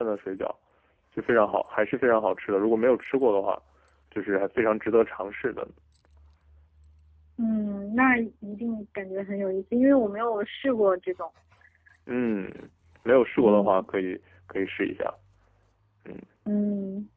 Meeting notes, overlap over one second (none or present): none